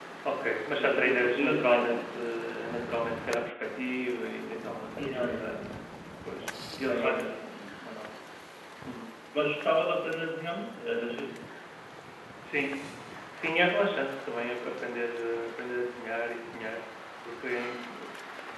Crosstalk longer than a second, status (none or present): present